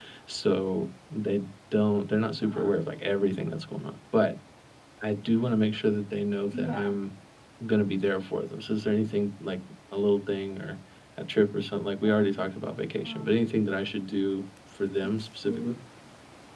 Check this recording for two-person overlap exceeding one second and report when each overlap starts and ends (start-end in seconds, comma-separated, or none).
none